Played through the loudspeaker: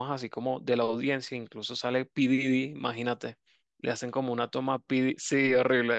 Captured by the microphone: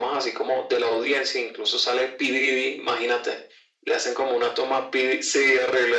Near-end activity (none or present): none